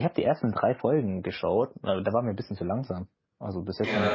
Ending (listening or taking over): listening